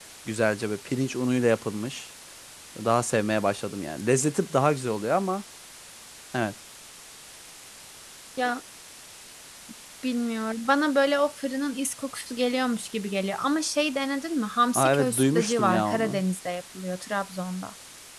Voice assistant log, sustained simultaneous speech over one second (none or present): present